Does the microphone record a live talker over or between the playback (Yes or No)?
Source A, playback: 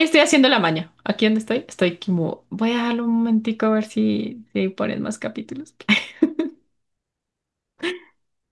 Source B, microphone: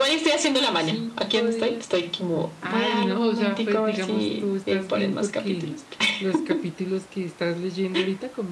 Yes